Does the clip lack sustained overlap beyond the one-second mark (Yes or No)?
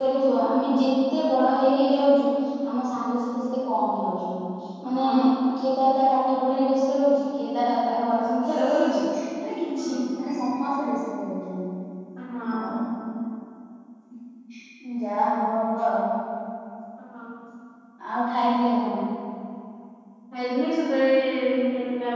Yes